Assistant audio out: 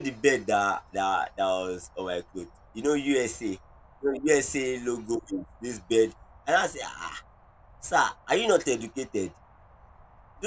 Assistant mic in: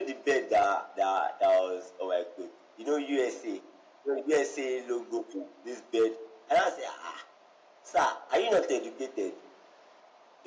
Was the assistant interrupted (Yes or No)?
No